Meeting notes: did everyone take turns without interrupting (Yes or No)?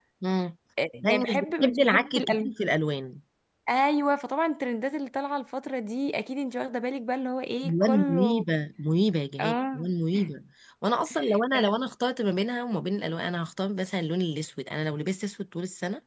No